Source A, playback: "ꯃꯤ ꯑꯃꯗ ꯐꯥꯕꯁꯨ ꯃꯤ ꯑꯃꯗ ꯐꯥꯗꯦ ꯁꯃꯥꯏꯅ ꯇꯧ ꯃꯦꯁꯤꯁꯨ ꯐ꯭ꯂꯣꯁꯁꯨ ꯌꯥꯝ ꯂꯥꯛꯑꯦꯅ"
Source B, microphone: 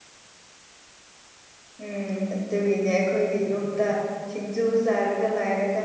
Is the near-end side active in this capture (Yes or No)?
Yes